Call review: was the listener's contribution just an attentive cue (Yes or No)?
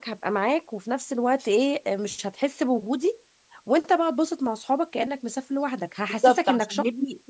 No